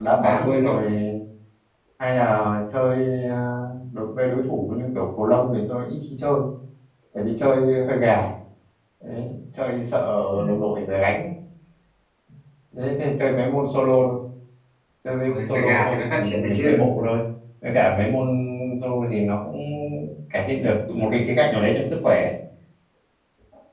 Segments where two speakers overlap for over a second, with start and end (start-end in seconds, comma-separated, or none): 15.3-16.6